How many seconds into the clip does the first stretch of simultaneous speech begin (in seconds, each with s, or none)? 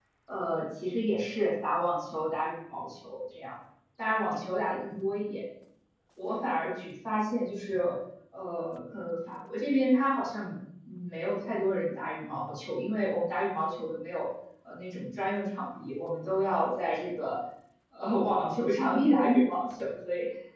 none